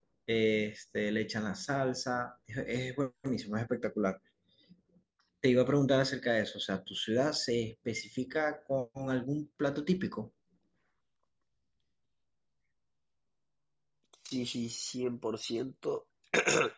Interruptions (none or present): none